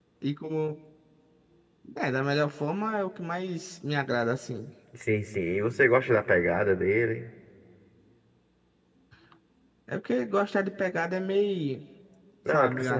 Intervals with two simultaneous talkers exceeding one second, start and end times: none

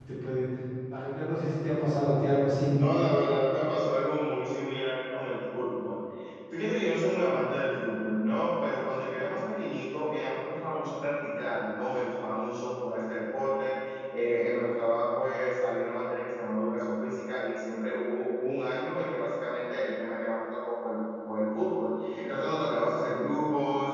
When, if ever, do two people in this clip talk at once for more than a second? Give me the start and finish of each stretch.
none

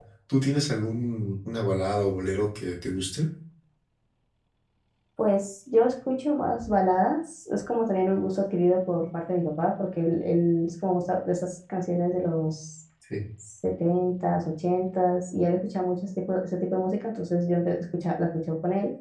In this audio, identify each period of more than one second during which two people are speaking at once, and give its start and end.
none

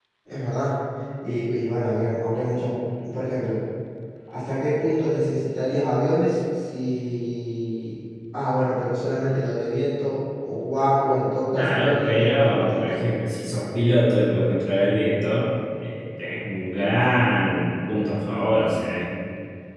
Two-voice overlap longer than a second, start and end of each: 11.5-13.1

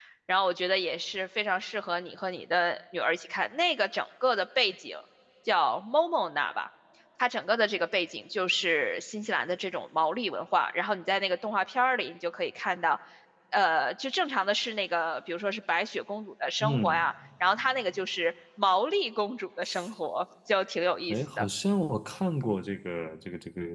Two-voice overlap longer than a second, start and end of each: none

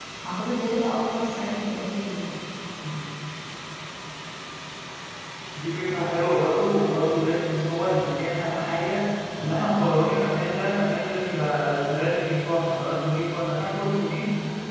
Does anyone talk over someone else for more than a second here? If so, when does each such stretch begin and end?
none

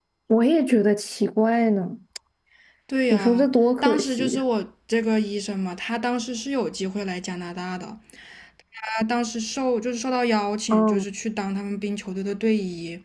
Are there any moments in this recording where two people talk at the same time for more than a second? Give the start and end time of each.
3.1-4.4

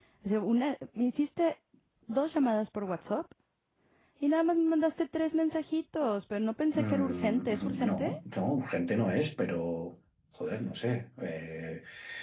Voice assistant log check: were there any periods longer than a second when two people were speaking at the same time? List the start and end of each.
6.7-8.1

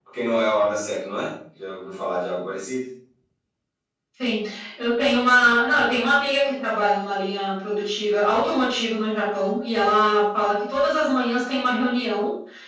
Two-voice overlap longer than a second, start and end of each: none

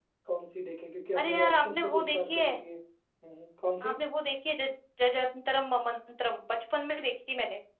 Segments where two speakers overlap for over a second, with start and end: 1.2-2.5

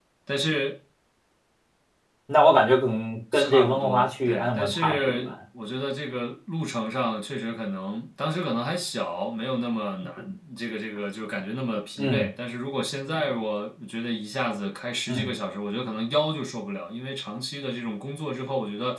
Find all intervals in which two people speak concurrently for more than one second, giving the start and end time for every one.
3.3-5.3

